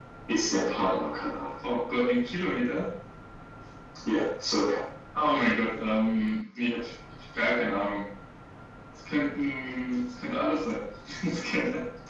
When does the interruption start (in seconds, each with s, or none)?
none